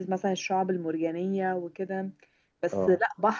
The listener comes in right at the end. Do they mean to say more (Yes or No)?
No